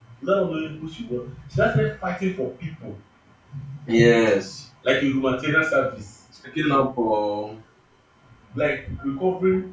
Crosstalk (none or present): none